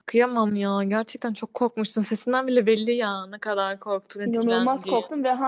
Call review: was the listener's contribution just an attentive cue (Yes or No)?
No